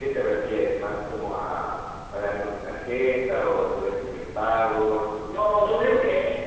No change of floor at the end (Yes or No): No